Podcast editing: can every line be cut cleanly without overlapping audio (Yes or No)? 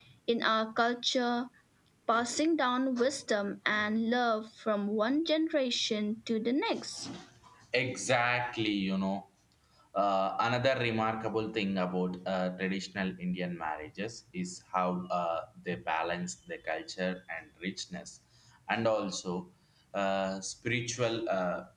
Yes